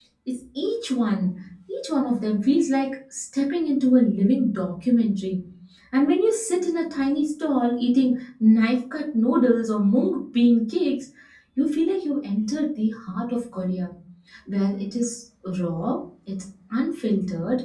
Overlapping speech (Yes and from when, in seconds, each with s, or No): No